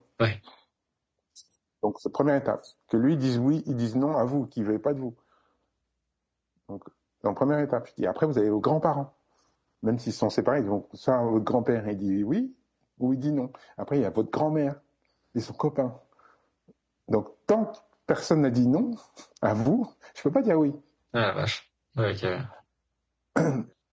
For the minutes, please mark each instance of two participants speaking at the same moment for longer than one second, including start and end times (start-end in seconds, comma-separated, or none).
none